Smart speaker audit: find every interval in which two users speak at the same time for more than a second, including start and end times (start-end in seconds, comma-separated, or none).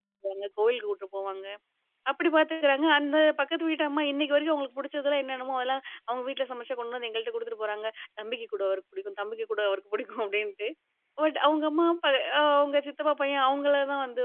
none